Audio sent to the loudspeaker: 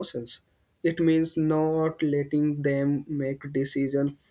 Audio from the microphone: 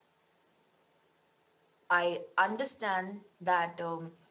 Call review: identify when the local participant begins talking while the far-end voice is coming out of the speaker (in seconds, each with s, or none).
1.9 s